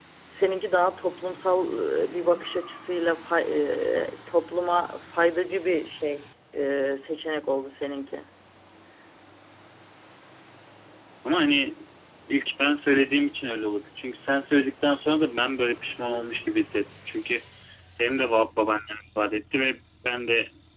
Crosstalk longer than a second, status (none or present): none